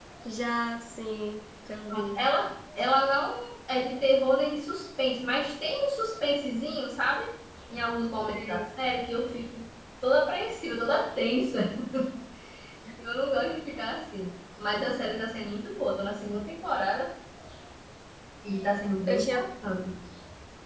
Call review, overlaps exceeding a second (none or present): none